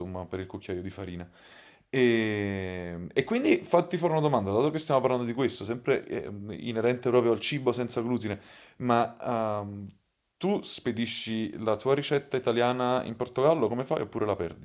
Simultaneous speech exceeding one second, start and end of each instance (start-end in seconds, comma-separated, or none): none